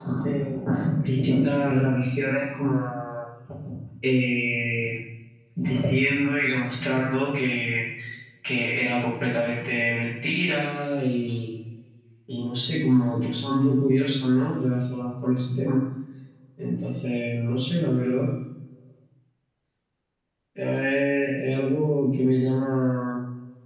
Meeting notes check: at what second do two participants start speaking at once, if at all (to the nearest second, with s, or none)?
none